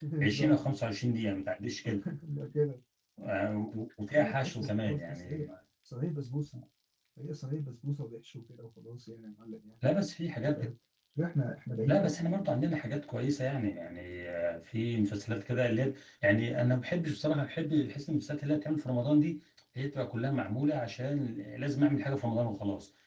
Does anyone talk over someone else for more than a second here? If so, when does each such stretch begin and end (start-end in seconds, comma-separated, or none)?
4.1-5.4